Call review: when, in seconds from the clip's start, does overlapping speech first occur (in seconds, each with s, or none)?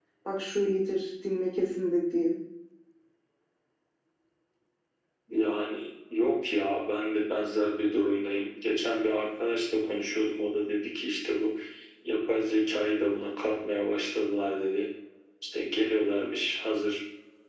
none